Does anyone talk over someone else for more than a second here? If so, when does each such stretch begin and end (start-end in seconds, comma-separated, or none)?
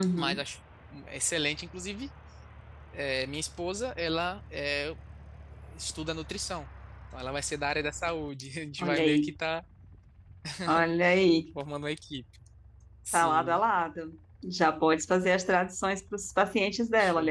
none